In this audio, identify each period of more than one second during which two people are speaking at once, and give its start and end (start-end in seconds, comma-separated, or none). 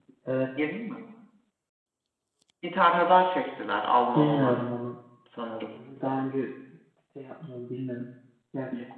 none